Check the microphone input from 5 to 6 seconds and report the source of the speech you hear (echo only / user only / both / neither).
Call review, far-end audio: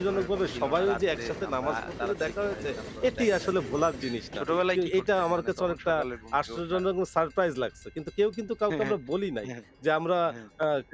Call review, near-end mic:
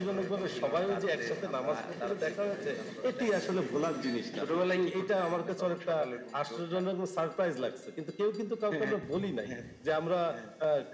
echo only